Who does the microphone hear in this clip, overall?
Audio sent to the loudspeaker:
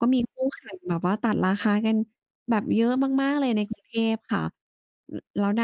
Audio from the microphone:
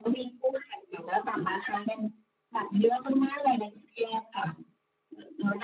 echo only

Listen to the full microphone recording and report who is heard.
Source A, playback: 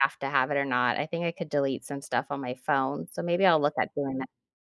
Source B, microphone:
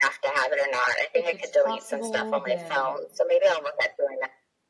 both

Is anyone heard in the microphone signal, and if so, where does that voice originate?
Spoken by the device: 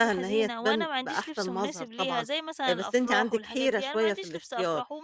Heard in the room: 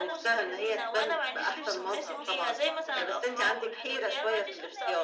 both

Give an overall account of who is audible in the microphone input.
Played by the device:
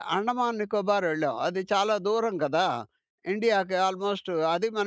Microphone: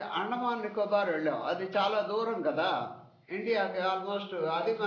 echo only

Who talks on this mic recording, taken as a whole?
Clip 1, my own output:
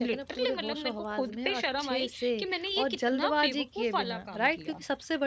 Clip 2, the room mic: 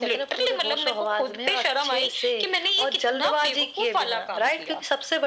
echo only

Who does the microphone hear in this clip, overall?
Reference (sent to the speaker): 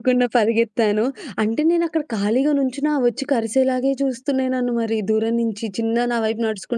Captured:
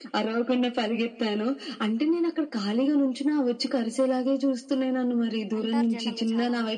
both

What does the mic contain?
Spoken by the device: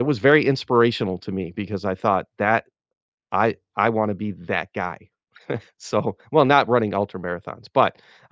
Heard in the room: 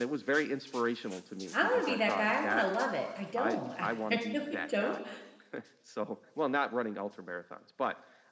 both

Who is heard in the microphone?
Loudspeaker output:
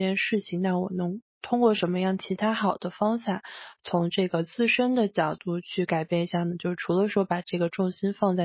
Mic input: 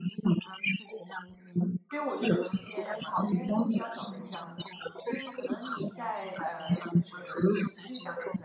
both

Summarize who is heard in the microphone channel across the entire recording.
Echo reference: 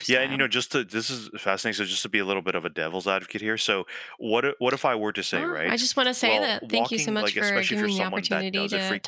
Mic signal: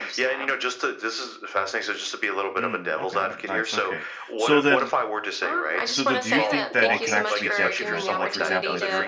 both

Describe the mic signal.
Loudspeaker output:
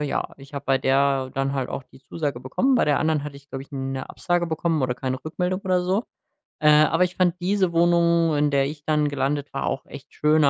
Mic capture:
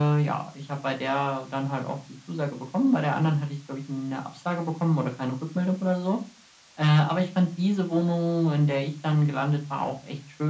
echo only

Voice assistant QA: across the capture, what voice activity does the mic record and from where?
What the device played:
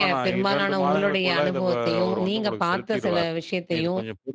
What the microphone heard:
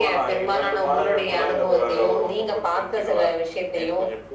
echo only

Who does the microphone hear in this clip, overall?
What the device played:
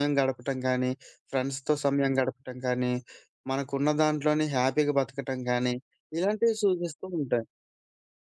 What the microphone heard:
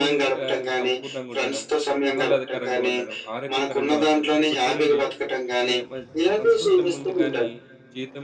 both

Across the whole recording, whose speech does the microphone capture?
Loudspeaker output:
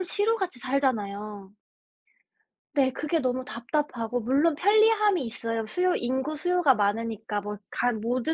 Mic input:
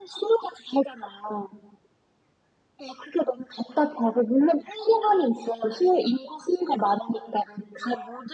echo only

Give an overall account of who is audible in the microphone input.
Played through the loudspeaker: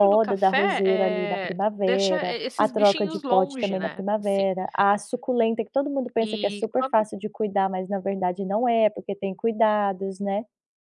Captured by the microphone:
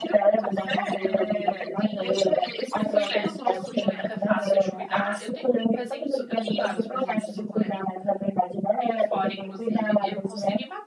both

